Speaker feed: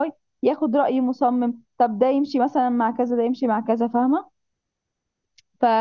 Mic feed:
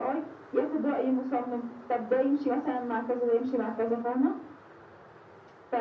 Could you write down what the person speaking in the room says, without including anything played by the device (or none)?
none